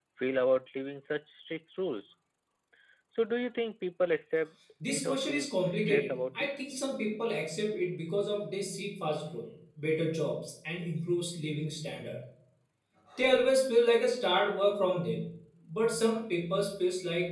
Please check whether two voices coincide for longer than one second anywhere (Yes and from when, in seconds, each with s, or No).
Yes, from 4.8 s